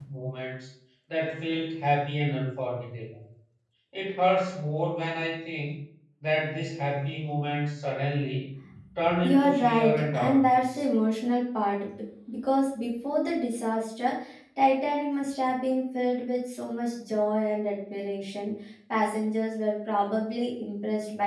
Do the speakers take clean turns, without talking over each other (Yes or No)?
No